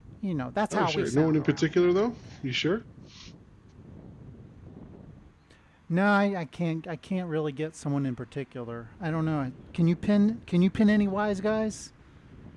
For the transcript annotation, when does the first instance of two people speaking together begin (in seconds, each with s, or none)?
0.7 s